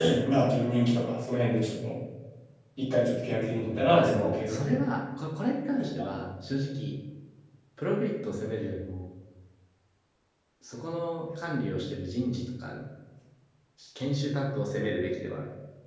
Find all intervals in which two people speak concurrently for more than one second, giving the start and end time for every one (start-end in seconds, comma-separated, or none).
3.6-4.9